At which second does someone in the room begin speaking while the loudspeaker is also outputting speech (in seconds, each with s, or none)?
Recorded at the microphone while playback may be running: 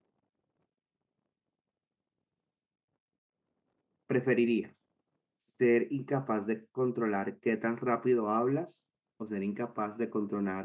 4.0 s